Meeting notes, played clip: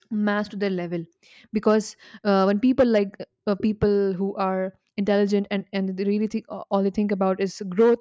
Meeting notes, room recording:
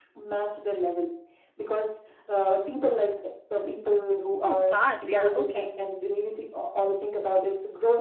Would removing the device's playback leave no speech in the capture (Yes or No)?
No